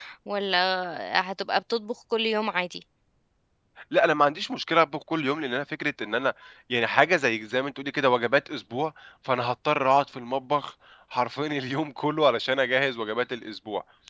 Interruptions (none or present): none